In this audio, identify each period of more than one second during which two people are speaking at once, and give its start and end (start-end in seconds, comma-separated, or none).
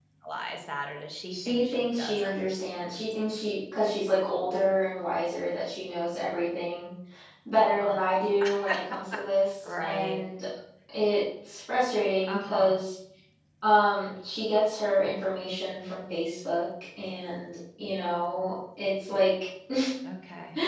1.3-3.1